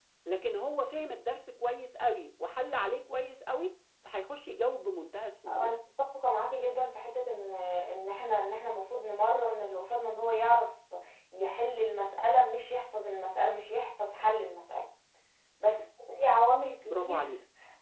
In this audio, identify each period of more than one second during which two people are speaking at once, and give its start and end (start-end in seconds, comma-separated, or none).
none